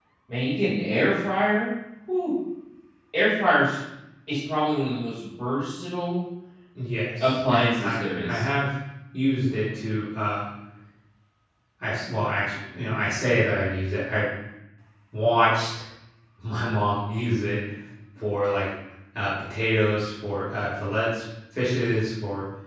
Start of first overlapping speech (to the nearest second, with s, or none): 7 s